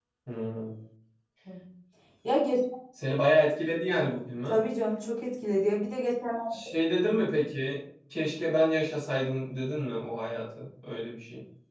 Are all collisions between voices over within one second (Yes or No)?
Yes